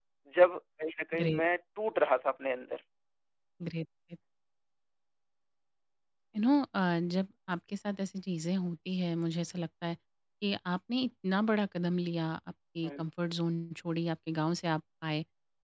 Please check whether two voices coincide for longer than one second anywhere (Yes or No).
No